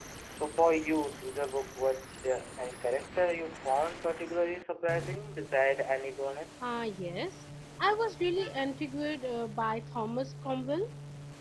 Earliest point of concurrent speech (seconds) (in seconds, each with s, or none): none